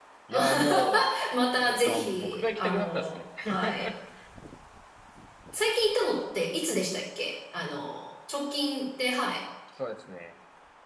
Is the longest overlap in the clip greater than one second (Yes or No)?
Yes